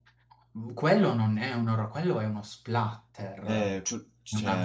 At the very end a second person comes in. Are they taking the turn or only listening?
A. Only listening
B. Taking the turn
B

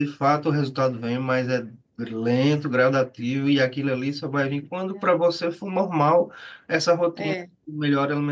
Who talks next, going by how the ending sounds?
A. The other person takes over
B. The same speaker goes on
B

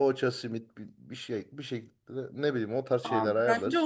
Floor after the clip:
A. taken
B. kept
A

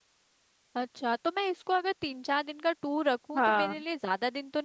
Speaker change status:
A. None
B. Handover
A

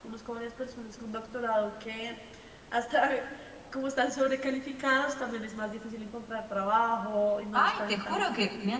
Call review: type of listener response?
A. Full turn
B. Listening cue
A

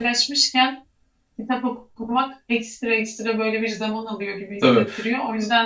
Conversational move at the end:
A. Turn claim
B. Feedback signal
B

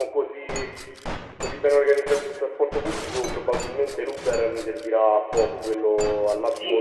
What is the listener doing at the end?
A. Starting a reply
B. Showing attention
A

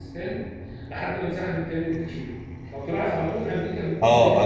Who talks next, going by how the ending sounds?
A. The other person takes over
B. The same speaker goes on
A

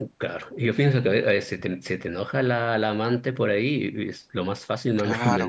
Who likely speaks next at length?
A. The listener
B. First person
A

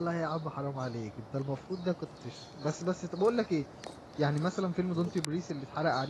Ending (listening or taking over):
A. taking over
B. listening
B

